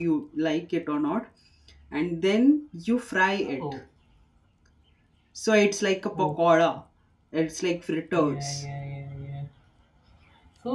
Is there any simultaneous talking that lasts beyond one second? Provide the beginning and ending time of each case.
none

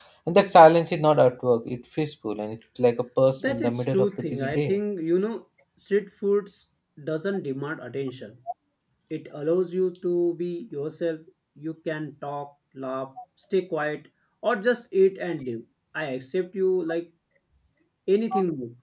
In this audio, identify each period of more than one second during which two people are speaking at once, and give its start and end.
3.4-4.8

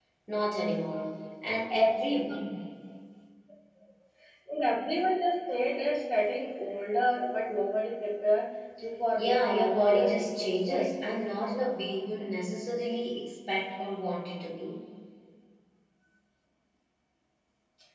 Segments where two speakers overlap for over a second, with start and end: 9.2-10.9

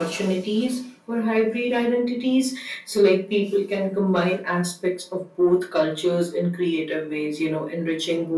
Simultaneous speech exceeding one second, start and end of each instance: none

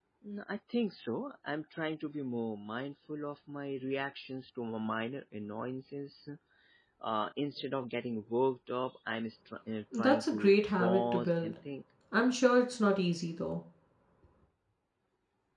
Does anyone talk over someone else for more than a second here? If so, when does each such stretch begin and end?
9.9-11.5

